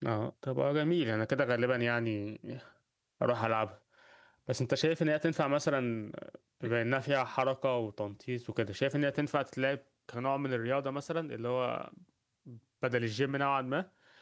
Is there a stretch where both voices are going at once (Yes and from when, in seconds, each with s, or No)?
No